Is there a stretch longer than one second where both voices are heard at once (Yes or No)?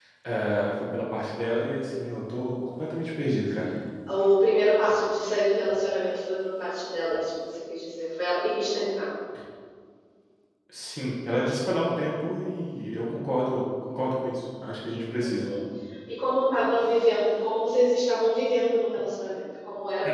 No